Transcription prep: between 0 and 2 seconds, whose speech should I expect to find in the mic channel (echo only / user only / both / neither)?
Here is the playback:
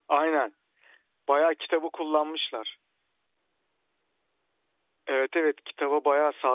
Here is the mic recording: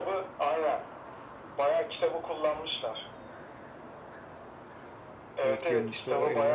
echo only